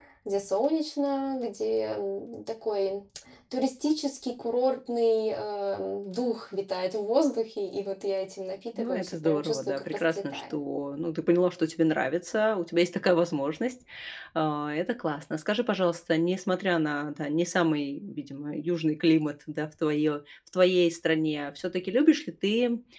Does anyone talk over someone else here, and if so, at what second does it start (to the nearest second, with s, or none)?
9 s